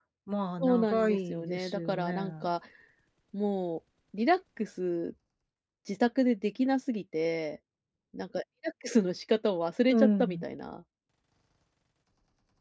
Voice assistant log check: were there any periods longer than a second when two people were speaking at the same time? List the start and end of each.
0.6-2.2

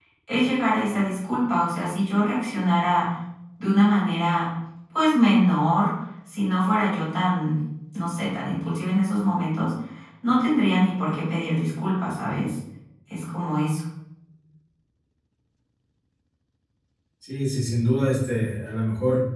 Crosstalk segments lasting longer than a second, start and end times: none

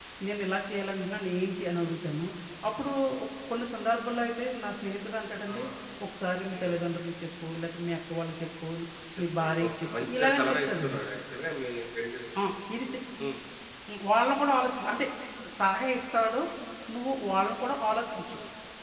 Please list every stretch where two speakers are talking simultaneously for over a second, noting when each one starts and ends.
9.4-11.0

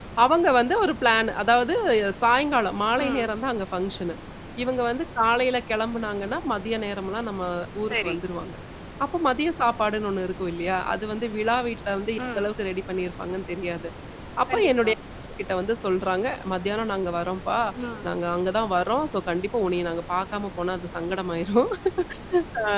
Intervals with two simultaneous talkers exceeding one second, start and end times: none

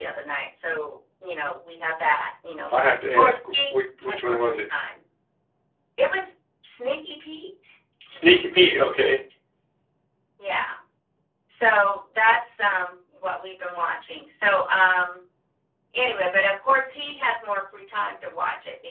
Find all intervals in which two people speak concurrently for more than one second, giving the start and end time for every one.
3.2-4.6

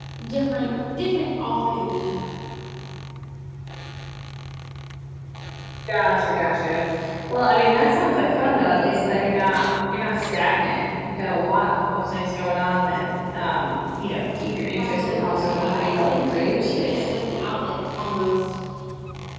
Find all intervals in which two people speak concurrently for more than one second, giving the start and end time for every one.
14.8-17.0

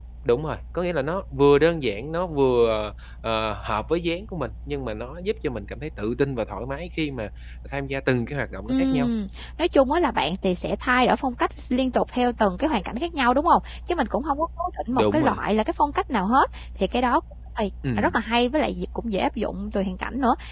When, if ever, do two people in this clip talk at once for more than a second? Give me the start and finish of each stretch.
none

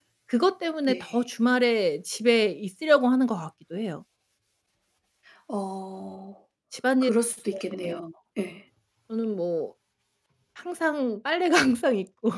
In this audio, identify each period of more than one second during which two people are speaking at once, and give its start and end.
none

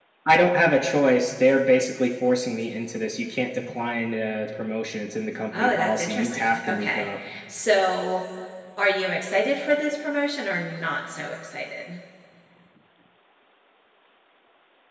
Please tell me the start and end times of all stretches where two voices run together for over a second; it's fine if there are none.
5.5-7.1

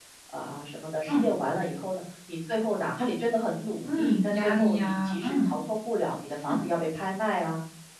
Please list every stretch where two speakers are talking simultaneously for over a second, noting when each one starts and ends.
3.8-5.5

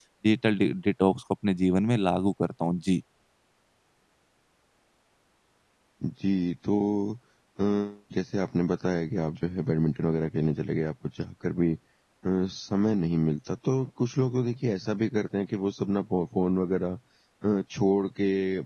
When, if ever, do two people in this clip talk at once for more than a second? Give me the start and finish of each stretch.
none

